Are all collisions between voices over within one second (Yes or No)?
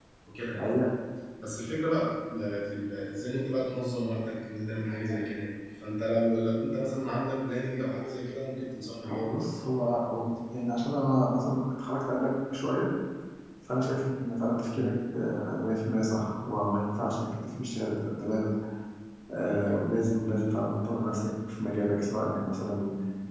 Yes